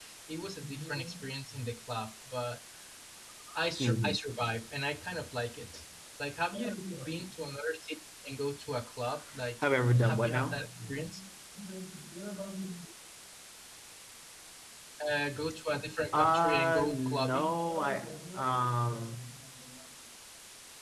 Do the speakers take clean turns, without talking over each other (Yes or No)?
No